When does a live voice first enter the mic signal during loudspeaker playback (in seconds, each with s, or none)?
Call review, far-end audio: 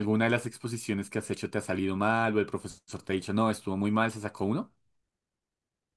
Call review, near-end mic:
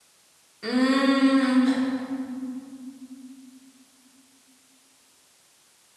0.6 s